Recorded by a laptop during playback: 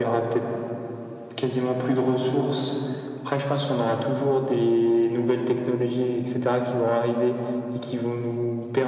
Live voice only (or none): none